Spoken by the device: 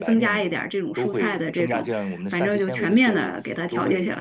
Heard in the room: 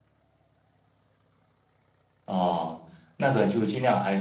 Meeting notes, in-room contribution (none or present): present